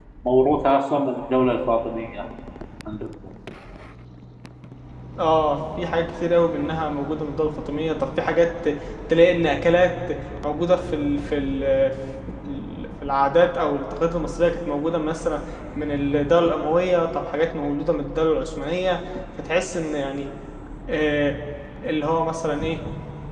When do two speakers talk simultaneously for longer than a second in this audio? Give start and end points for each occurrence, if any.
none

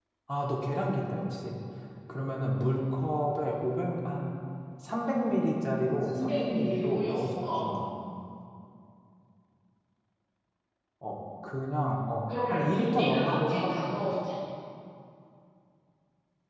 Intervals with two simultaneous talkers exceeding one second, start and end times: 6.1-7.6, 12.3-14.0

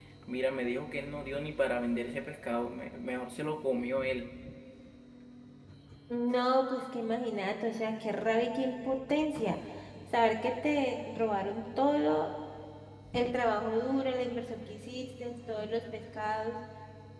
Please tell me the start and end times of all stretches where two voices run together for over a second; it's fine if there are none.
none

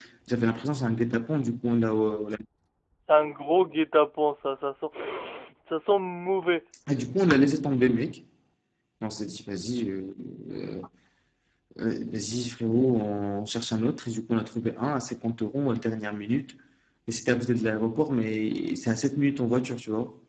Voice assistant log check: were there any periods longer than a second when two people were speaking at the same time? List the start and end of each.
none

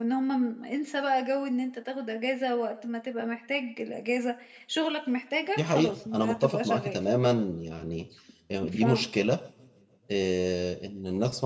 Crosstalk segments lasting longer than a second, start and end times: 5.6-7.0

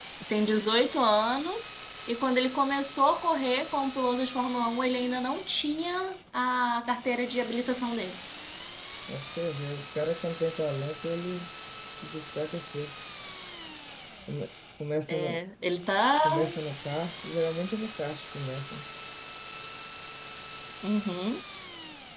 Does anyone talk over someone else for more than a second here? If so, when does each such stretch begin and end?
none

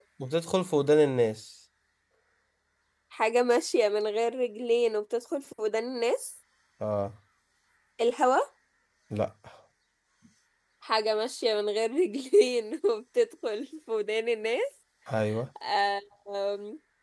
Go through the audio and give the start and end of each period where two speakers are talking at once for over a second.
none

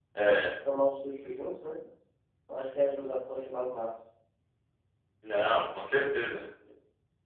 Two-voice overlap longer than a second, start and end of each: none

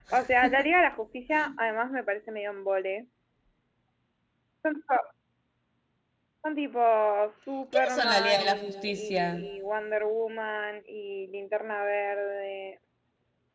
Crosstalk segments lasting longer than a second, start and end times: 7.7-9.4

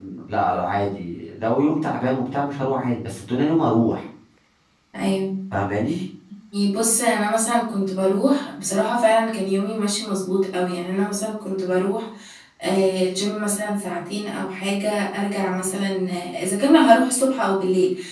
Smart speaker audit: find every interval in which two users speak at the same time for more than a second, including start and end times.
none

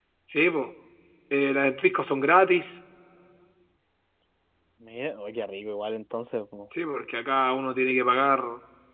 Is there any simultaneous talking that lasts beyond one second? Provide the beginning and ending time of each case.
none

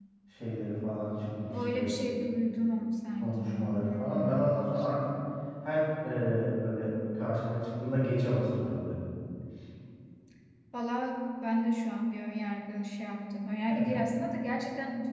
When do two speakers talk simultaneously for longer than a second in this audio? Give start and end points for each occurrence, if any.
3.2-4.5

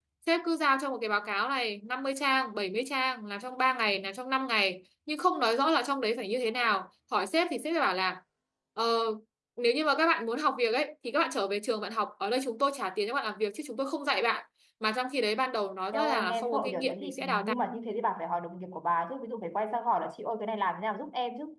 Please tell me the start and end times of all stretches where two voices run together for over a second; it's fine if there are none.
15.9-17.5

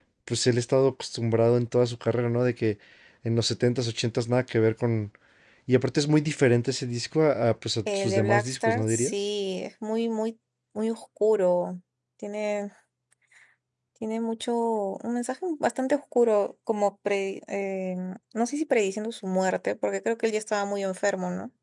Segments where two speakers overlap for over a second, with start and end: 7.9-9.1

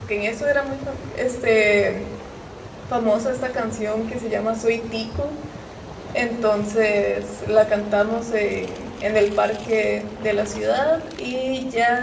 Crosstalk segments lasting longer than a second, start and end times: none

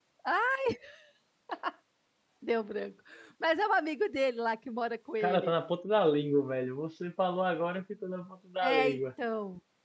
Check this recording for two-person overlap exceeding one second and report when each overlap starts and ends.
none

